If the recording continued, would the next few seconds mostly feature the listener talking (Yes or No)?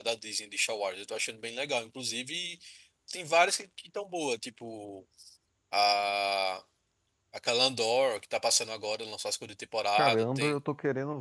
Yes